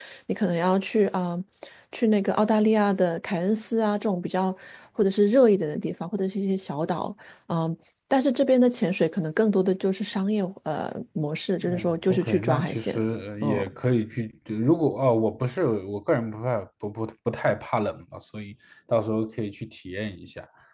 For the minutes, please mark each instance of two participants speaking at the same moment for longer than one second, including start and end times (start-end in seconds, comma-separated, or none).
11.6-13.0